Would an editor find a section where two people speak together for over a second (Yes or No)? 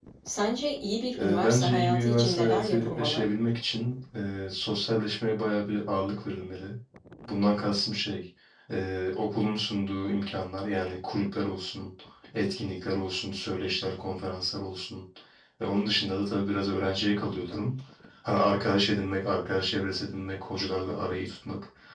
Yes